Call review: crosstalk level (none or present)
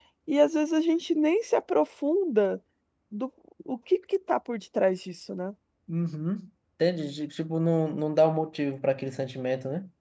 none